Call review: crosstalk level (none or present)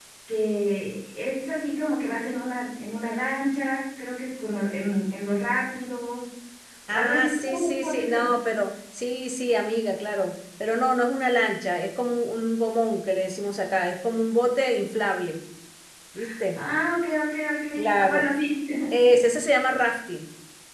present